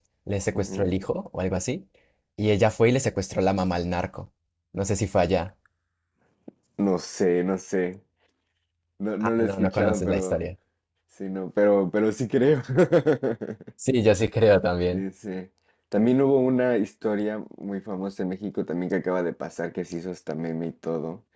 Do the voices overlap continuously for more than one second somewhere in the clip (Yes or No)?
Yes